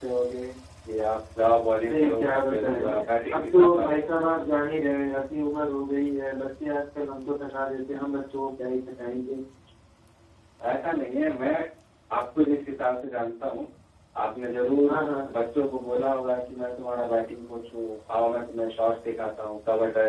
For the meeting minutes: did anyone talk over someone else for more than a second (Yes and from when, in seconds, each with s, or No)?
Yes, from 1.8 s